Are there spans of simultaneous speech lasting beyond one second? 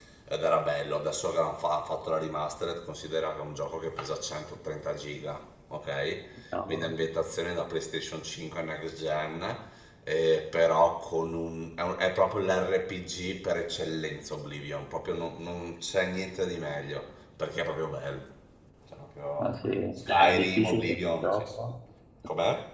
Yes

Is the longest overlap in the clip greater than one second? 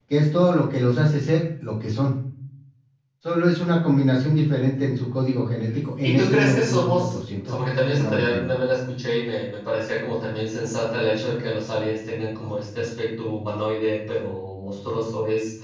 Yes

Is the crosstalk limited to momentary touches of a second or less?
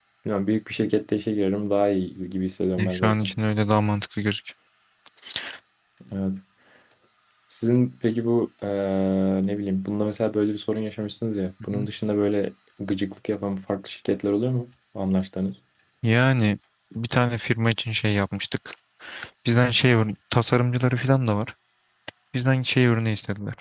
Yes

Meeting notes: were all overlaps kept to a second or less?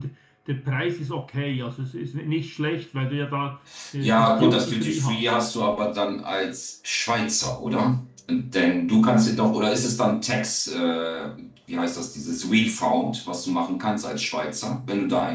No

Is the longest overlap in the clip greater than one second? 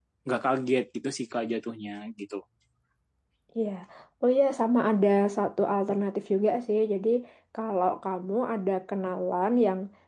No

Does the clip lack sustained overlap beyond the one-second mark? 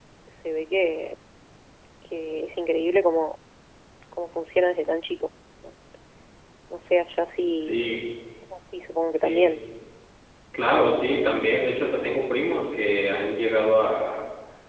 Yes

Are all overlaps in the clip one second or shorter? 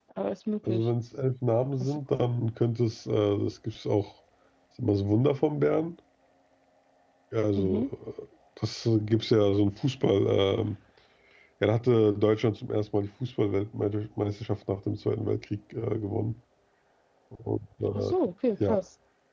Yes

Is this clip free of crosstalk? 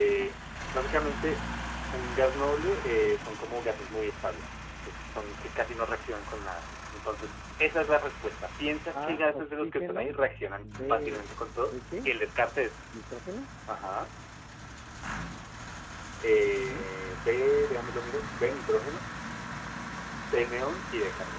No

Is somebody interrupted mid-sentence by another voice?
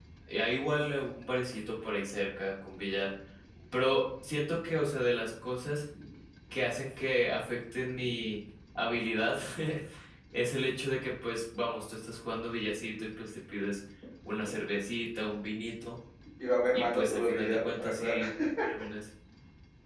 Yes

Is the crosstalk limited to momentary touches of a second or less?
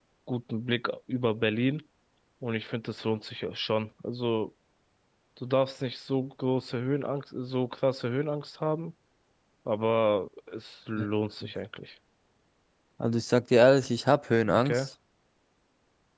Yes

